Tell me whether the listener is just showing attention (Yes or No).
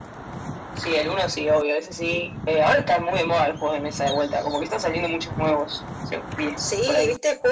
No